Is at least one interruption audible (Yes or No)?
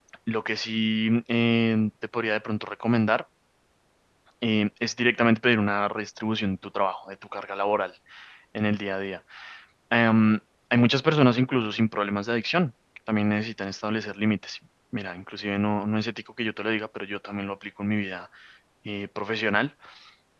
No